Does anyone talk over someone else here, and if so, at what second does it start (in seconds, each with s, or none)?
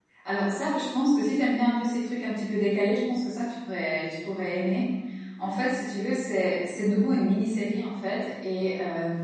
none